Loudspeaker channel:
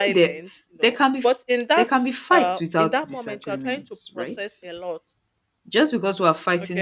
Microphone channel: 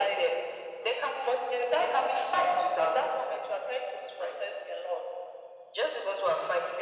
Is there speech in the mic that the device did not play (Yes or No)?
No